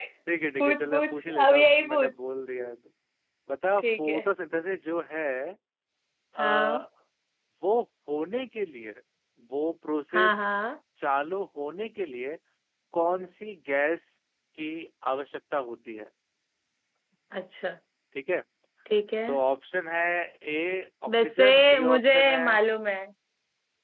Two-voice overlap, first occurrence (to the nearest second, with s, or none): 1 s